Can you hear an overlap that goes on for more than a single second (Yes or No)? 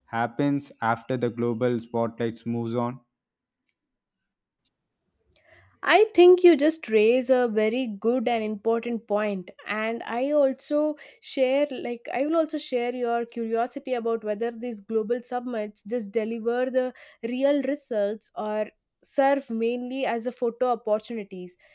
No